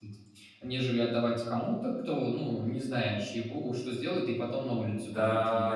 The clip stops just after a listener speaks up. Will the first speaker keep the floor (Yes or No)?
No